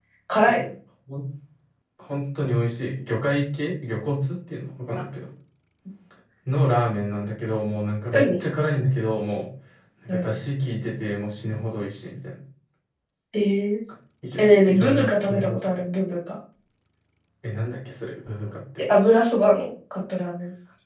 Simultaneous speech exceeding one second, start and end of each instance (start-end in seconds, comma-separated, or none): 14.4-15.6